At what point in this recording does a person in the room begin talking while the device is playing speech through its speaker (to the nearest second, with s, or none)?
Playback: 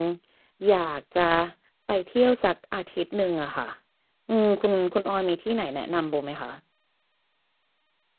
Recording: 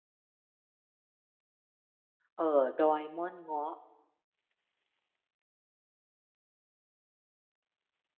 2 s